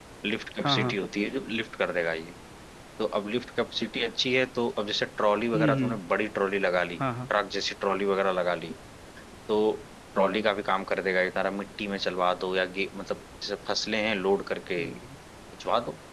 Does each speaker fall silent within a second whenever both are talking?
Yes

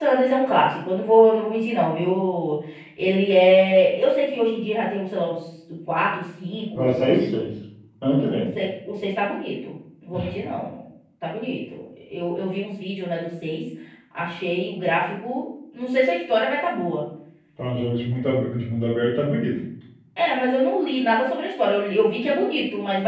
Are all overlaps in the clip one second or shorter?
Yes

